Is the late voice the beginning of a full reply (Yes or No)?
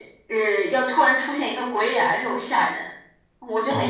Yes